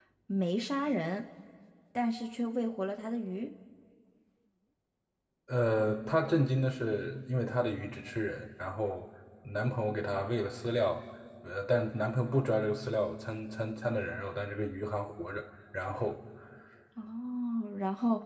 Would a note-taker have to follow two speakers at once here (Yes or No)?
No